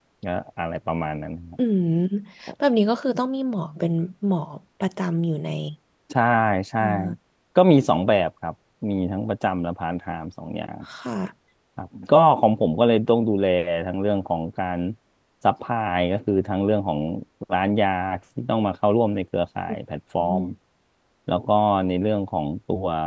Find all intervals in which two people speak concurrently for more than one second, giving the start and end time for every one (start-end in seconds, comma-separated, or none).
none